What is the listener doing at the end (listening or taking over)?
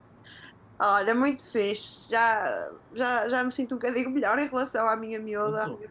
listening